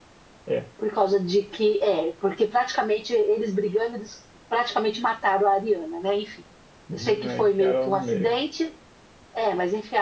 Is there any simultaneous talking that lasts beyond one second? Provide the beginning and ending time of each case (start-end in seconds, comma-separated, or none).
6.9-8.3